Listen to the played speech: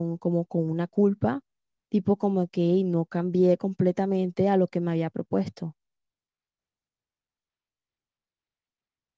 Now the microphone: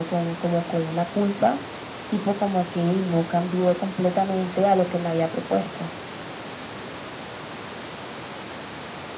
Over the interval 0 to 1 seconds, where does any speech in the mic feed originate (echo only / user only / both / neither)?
echo only